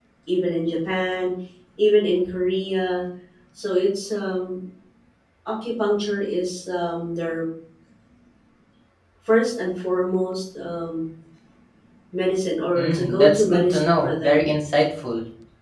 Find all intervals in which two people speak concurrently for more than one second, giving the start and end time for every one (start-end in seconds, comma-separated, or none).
12.8-14.5